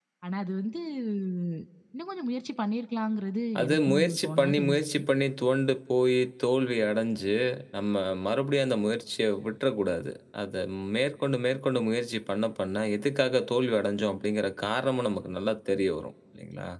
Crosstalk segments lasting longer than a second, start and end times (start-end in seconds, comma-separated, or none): 3.6-5.0